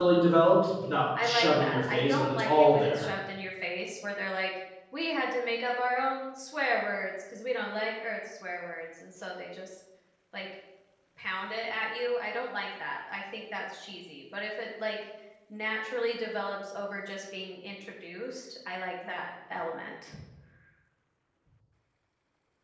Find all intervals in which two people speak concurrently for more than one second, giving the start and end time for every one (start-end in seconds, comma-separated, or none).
1.2-3.1